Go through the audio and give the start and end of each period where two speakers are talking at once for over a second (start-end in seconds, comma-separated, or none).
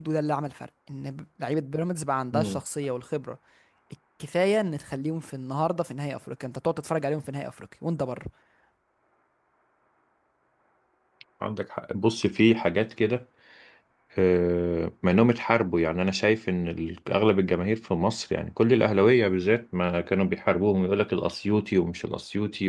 none